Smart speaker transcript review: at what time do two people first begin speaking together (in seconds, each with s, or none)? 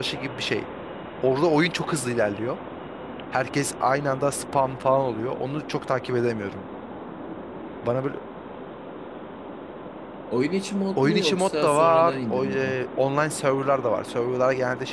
11.0 s